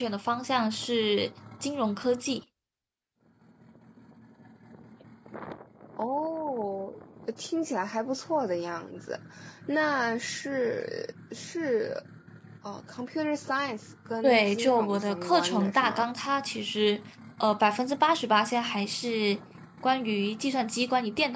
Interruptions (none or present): present